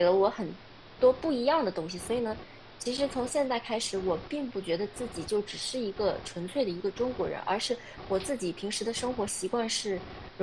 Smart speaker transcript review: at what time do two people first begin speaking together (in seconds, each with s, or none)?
none